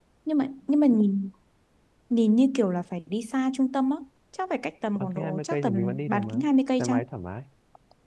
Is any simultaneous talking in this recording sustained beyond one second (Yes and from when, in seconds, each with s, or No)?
Yes, from 5.0 s